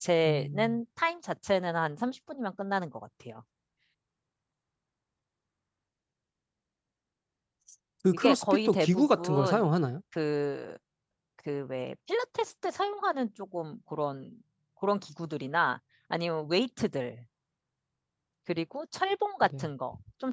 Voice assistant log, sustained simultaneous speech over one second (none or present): present